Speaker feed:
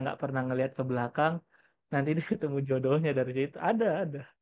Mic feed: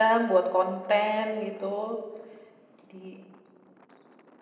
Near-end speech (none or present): present